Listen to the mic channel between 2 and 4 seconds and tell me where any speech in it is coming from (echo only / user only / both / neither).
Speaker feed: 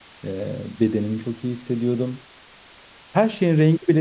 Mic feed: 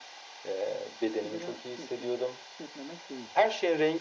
both